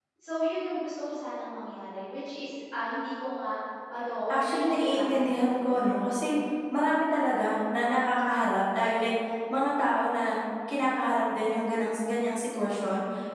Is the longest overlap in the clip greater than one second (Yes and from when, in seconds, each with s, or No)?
Yes, from 4.3 s